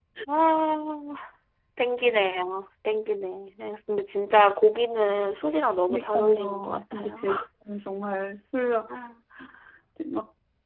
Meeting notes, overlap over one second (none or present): present